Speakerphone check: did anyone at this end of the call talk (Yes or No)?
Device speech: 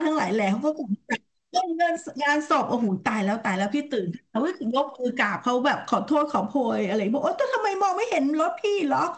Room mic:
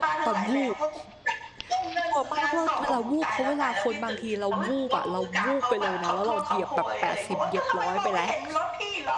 Yes